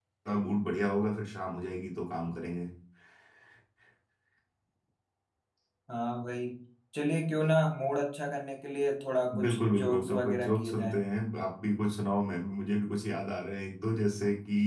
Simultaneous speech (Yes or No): Yes